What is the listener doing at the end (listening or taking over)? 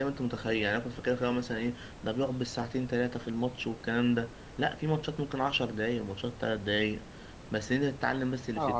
listening